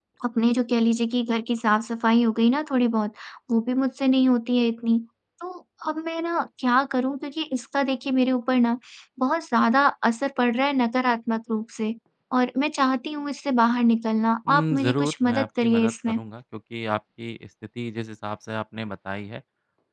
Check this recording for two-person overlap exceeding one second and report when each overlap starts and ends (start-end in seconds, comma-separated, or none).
14.5-16.2